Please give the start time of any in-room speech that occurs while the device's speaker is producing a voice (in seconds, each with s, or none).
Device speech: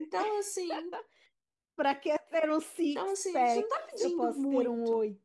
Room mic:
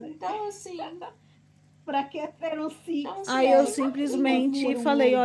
3.2 s